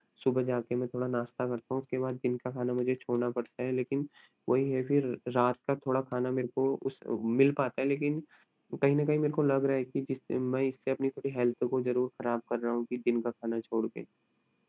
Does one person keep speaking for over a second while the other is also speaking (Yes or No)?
No